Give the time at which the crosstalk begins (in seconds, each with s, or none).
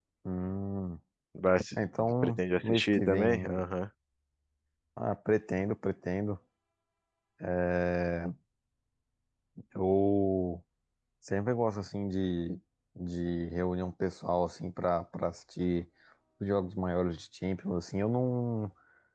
2.2 s